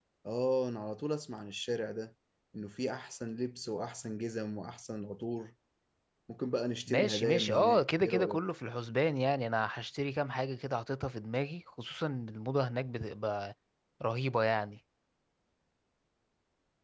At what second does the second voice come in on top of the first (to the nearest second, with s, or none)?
7 s